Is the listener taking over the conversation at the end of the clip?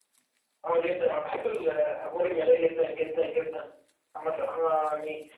No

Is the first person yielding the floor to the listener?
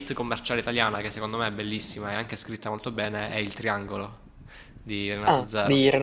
Yes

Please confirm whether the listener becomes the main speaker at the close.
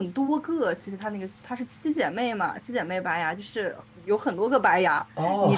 No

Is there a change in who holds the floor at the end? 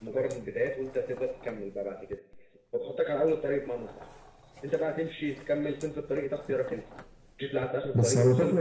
Yes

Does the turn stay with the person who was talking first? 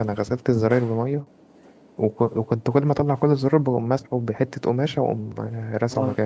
No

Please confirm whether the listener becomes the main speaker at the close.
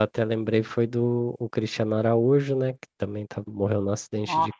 No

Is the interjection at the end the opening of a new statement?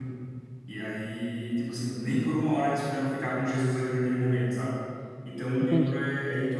No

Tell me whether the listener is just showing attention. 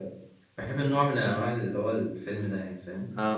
No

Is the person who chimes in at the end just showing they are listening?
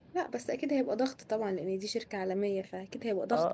No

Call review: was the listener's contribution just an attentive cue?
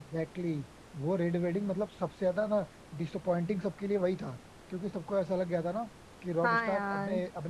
Yes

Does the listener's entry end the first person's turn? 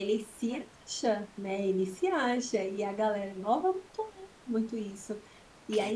No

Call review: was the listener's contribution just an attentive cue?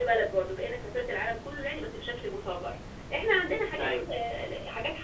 Yes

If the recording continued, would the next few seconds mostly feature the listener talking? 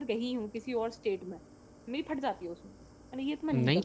Yes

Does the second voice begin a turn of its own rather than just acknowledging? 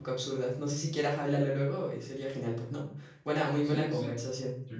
Yes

